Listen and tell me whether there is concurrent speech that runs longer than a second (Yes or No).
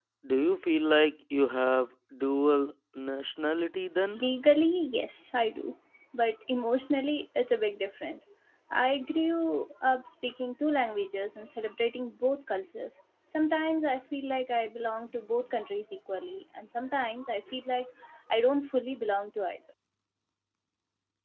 No